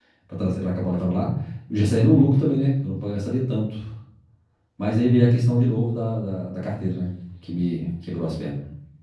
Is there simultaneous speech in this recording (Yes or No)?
No